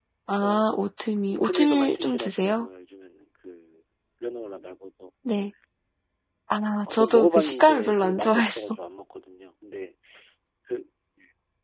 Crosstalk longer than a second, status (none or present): present